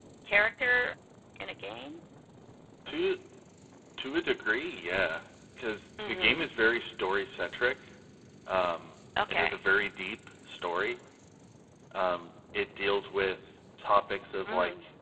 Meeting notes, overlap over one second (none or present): none